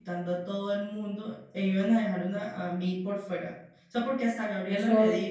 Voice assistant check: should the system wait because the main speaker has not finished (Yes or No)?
No